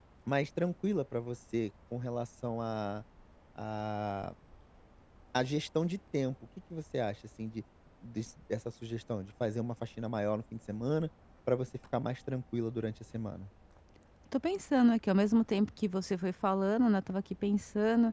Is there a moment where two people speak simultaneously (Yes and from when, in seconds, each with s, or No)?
No